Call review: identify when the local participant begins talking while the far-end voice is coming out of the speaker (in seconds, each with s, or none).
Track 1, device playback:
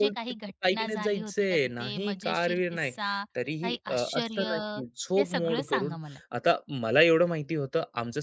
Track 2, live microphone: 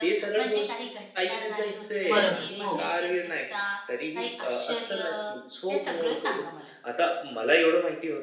2.1 s